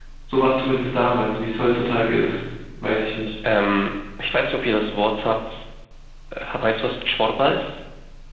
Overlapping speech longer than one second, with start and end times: none

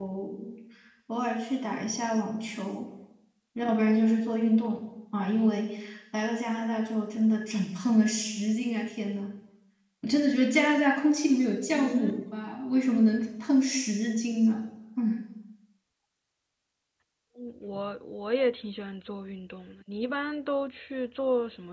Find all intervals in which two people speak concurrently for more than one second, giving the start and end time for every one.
none

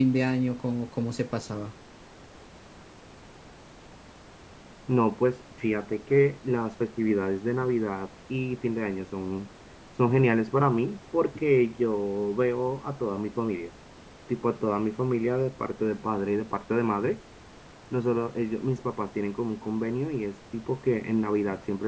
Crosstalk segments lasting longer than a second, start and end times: none

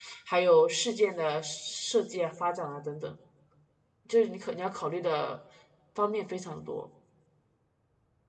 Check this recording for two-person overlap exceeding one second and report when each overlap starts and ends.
none

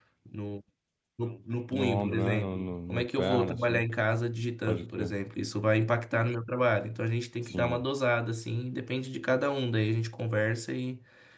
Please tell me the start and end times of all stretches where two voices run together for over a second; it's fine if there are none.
1.7-3.8

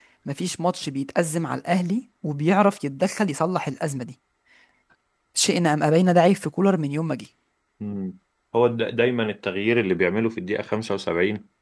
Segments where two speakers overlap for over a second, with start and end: none

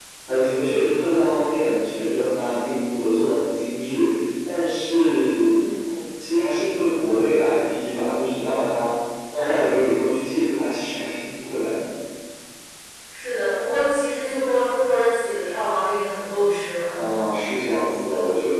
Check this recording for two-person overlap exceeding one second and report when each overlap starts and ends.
none

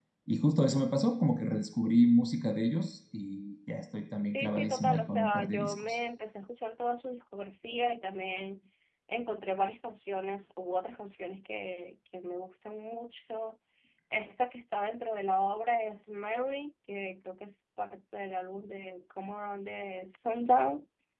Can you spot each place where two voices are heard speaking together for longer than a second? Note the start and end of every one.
4.2-6.0

